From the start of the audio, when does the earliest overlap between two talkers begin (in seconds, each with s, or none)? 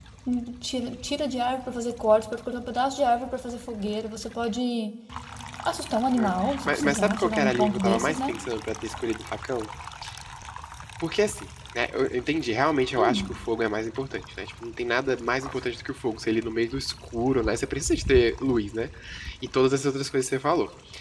6.2 s